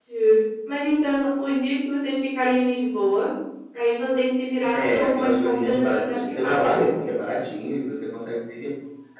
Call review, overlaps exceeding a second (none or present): present